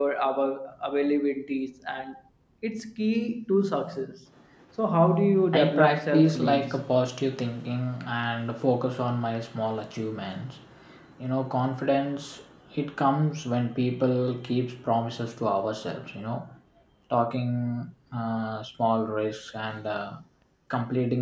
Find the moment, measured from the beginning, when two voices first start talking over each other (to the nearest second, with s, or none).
6 s